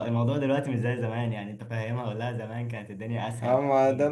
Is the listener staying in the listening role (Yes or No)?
No